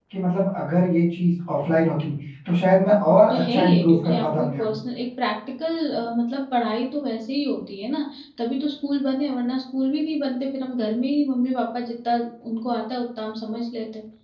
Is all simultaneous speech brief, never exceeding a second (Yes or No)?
No